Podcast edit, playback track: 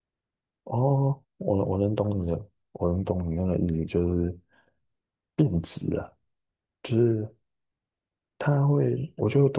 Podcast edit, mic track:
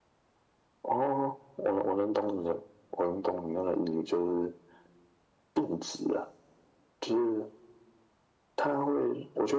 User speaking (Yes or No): No